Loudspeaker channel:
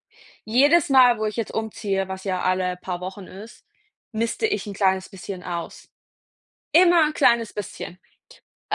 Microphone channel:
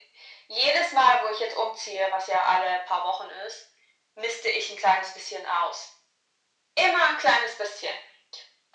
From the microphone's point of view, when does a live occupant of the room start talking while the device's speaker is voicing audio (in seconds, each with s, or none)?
none